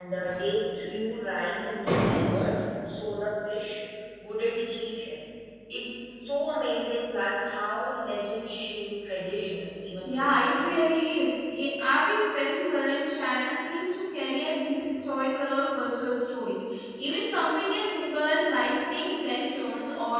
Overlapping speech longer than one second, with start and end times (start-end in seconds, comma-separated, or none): none